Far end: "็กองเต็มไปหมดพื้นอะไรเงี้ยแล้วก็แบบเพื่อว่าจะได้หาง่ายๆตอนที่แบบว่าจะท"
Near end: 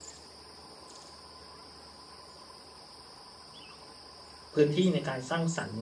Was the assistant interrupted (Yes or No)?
Yes